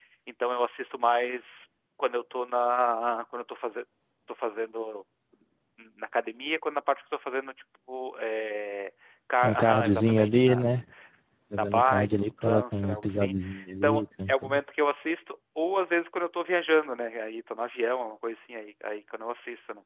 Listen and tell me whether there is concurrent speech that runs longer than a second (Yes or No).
Yes